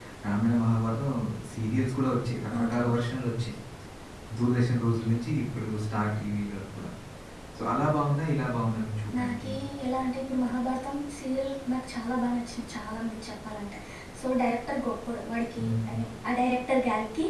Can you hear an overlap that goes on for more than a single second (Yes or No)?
No